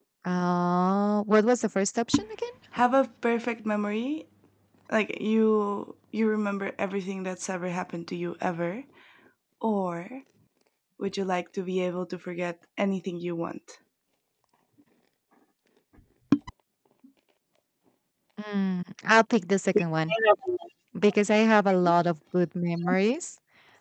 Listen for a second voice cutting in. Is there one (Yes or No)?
No